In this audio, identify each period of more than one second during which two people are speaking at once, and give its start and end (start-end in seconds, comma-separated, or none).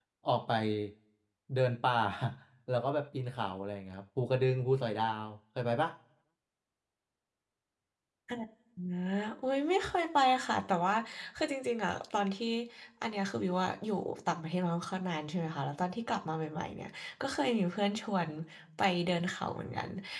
none